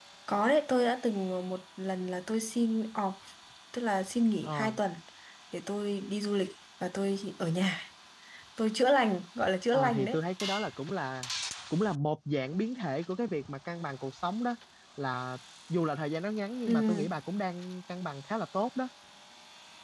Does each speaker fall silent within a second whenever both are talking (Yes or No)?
Yes